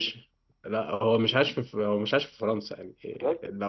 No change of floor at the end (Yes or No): Yes